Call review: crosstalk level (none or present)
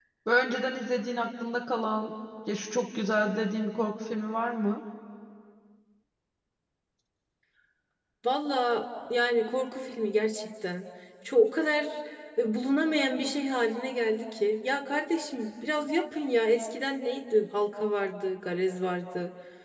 none